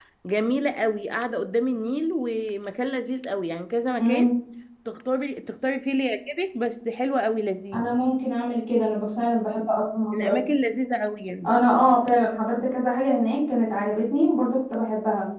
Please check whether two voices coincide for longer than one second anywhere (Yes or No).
No